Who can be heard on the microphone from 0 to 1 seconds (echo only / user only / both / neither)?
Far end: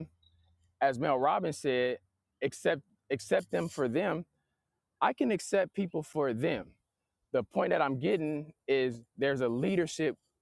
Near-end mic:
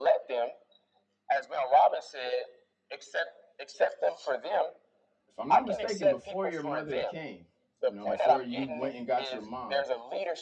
echo only